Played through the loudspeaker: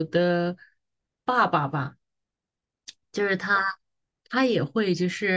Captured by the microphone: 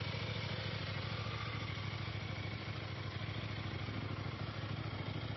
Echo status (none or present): none